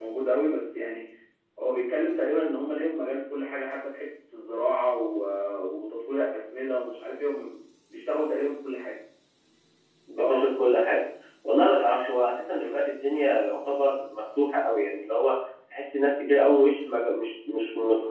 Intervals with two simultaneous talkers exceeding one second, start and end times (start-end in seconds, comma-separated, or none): none